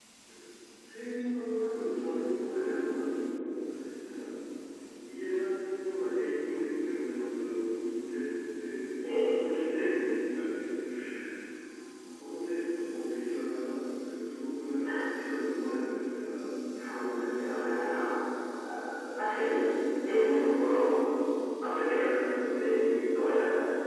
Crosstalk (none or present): present